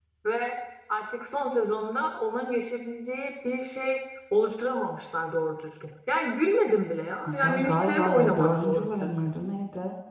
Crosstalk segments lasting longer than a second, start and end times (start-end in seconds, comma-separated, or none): 7.2-9.2